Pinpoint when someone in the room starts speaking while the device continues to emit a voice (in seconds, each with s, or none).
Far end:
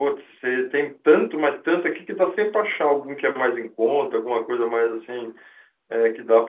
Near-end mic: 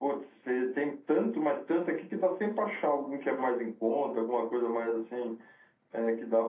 none